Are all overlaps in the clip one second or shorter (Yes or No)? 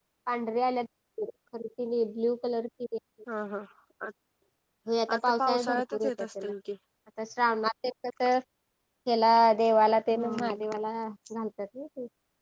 No